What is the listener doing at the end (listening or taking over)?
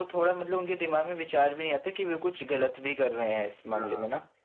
taking over